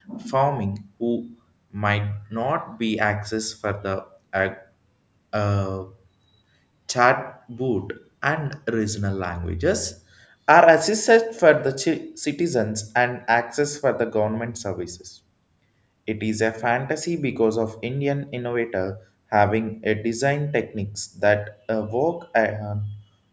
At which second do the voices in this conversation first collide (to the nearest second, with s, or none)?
none